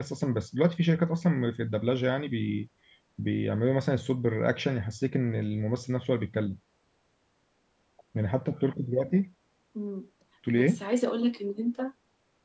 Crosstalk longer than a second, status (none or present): none